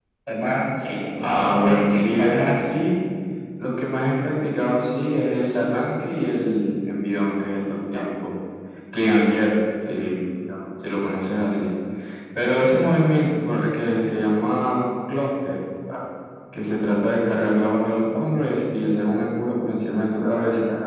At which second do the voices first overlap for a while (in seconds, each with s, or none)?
1.2 s